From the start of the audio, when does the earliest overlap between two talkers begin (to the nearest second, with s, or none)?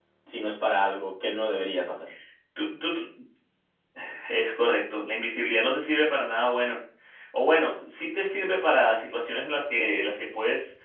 none